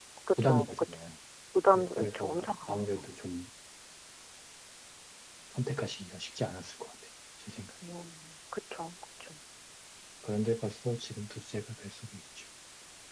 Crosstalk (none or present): present